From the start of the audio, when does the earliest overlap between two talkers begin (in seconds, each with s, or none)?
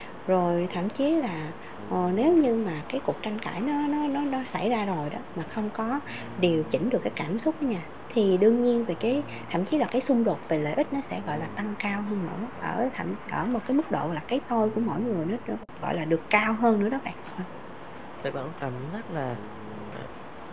none